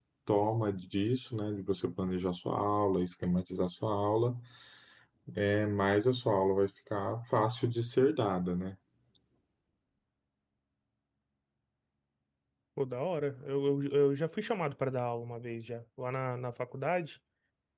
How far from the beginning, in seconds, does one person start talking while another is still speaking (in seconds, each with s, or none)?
none